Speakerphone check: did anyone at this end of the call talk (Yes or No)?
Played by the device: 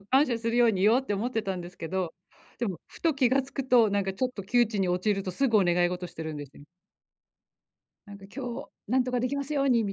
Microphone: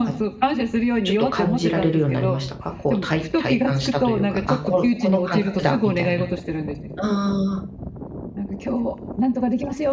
Yes